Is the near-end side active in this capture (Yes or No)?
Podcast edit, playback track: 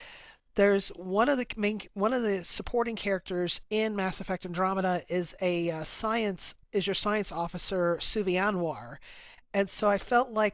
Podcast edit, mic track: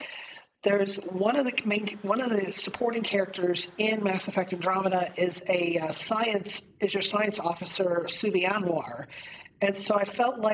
No